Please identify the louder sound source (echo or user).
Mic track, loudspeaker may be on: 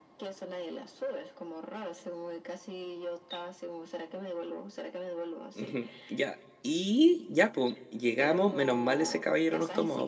user